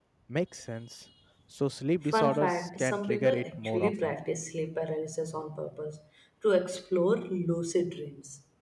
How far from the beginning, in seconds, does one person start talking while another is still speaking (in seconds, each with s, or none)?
2.1 s